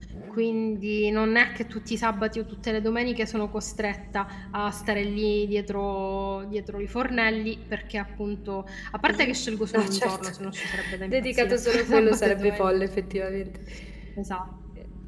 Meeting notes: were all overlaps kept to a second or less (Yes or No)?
No